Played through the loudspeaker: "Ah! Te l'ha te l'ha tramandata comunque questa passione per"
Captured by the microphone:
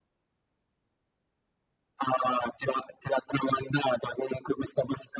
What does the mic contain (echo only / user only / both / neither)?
echo only